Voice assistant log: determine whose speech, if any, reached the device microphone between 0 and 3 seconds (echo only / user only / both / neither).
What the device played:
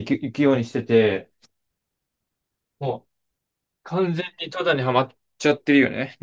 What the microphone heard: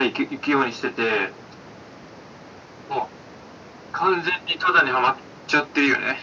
echo only